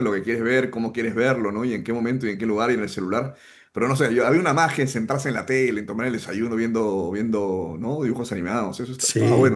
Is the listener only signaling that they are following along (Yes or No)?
No